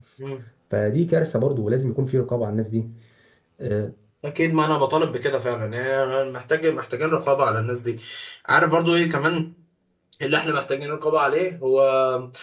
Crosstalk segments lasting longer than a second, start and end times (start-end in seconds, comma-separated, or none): none